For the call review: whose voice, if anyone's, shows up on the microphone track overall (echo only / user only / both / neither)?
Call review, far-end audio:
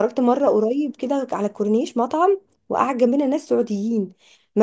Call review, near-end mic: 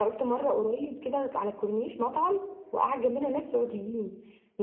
echo only